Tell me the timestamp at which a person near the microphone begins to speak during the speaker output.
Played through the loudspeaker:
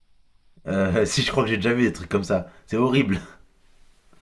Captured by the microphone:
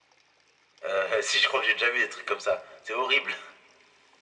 none

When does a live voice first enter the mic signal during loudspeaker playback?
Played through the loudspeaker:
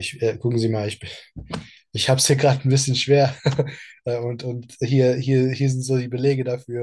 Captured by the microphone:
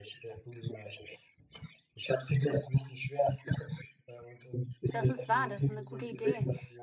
4.9 s

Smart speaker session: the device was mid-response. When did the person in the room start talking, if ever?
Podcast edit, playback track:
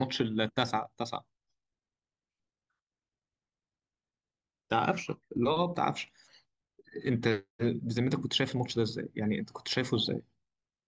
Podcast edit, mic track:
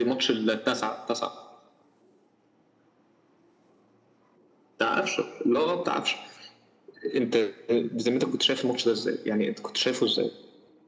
none

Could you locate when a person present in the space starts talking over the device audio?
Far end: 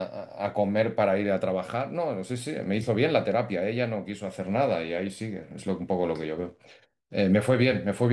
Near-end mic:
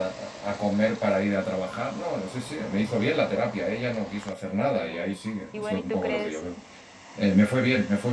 4.7 s

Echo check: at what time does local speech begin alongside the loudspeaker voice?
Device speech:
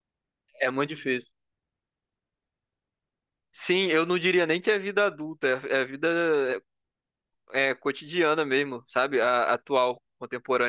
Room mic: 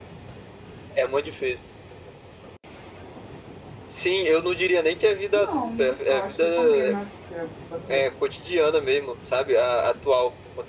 5.3 s

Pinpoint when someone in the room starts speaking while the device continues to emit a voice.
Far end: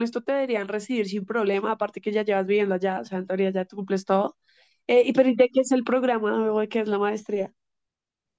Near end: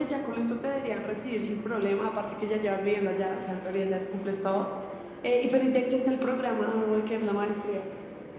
none

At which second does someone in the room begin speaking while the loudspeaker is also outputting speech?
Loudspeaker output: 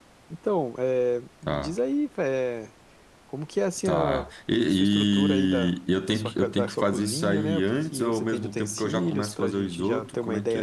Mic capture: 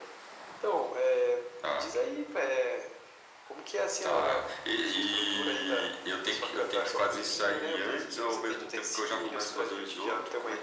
none

